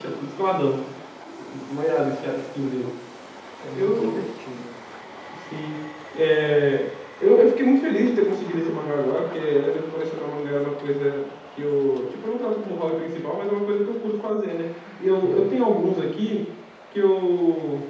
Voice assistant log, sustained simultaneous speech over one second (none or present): none